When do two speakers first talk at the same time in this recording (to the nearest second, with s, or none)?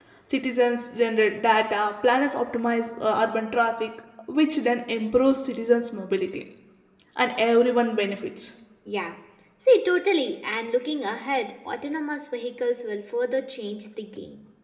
none